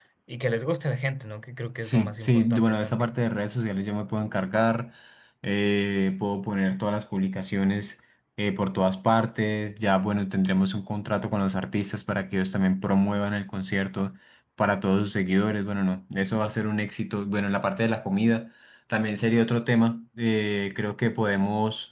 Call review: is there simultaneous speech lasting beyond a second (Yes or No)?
Yes